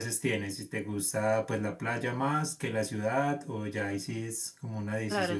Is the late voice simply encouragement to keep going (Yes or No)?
No